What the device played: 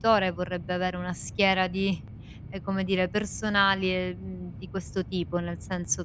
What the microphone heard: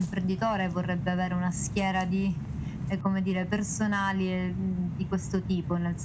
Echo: present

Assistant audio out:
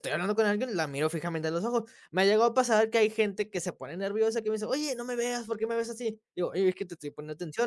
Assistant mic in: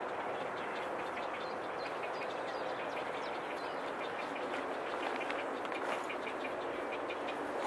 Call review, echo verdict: none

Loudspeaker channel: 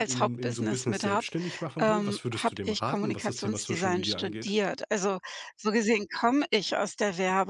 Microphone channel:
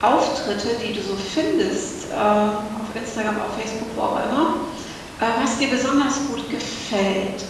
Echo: none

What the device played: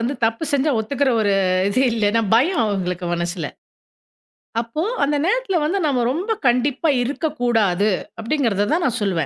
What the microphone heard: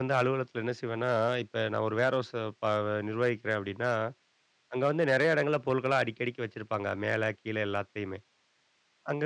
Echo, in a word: none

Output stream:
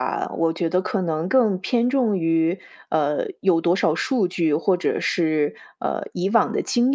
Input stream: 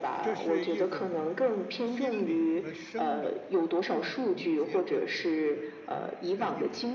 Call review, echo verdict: present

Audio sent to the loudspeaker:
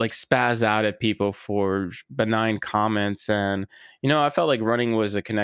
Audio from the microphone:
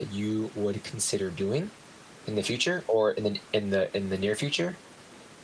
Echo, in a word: none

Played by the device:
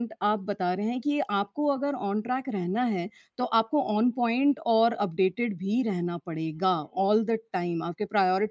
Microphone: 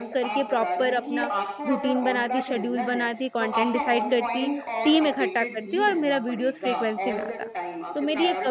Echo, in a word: present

